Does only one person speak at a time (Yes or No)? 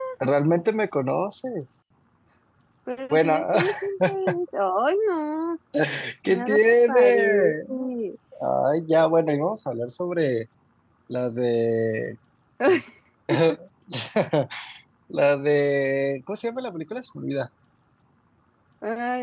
No